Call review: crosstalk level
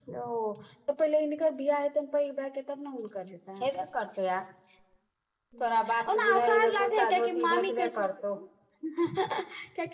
present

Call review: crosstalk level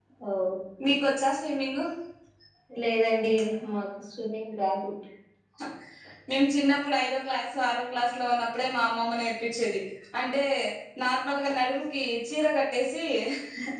none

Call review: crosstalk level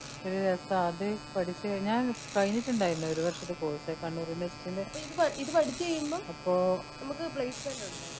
none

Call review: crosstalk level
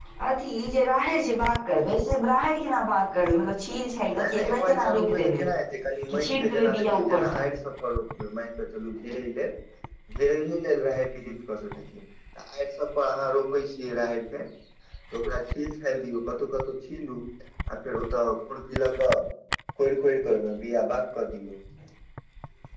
present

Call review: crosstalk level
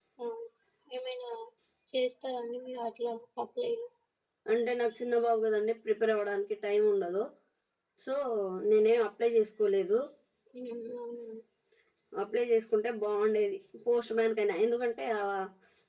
none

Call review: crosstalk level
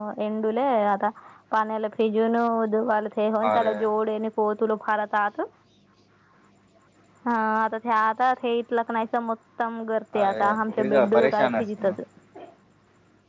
present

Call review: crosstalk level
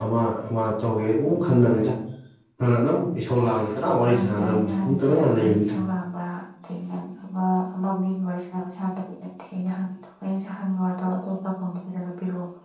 present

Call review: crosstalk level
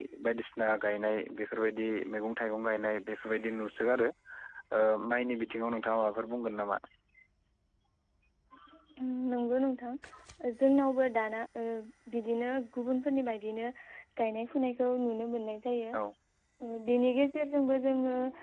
none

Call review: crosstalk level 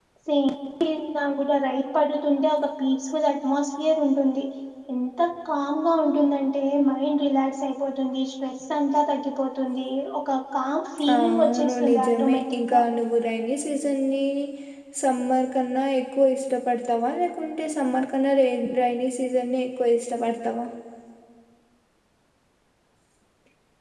present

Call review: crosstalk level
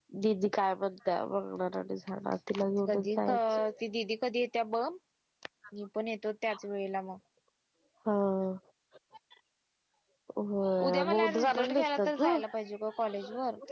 present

